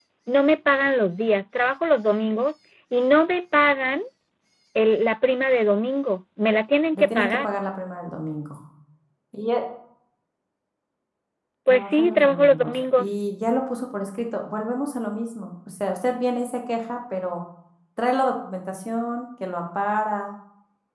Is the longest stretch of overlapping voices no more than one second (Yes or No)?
No